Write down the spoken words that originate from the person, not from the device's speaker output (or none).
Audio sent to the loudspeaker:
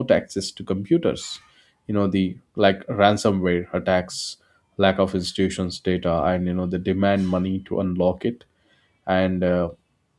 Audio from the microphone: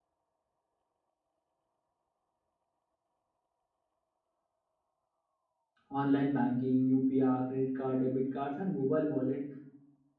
online banking, UPI, credit card, debit cards, and mobile wallet,